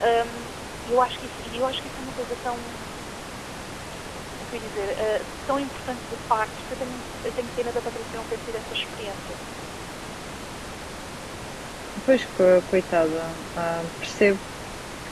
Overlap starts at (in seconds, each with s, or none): none